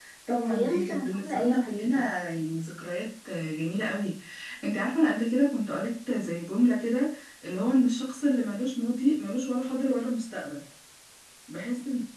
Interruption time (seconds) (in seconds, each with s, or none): 0.5 s